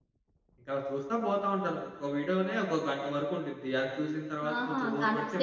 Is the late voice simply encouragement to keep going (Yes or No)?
No